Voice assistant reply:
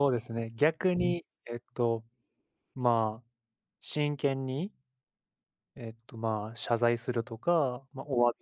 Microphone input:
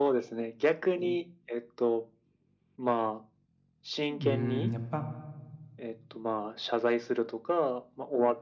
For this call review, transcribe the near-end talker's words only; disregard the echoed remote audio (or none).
うん、やっぱ